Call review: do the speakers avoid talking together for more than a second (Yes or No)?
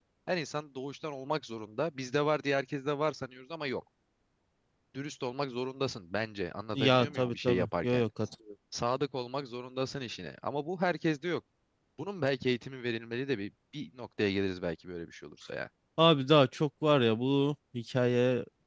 No